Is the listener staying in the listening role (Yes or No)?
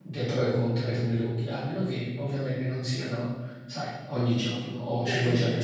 No